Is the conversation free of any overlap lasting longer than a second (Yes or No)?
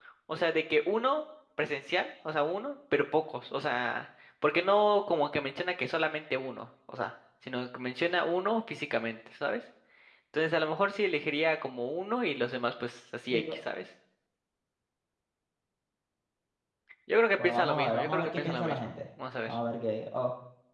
No